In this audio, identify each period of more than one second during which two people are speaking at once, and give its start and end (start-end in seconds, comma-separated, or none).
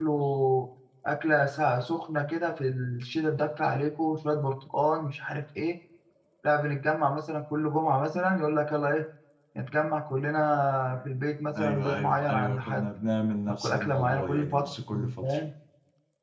11.6-12.9, 13.5-14.7